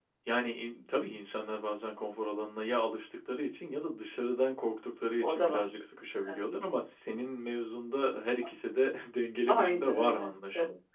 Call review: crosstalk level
present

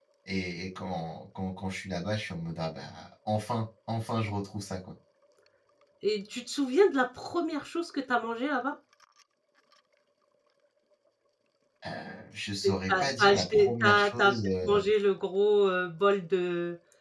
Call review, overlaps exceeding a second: present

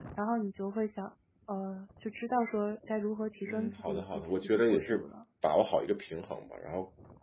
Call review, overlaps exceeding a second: present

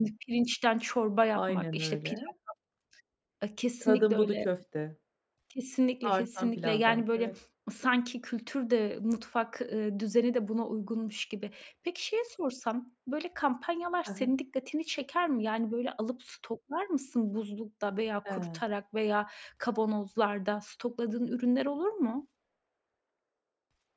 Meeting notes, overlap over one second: present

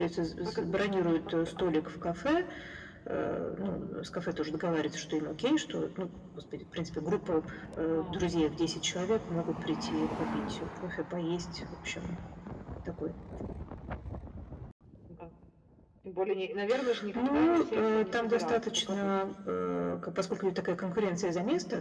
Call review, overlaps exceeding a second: present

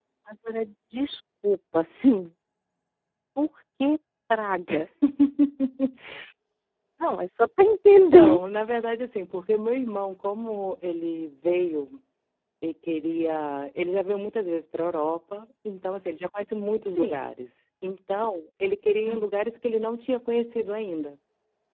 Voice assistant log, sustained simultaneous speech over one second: none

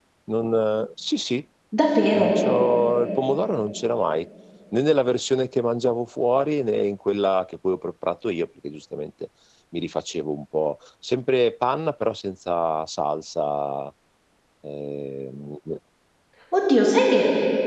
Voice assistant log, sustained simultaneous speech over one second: none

